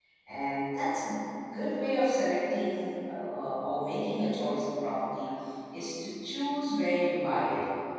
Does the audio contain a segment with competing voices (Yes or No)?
No